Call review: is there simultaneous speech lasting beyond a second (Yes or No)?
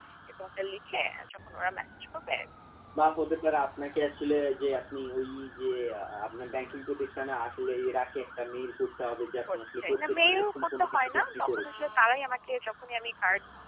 Yes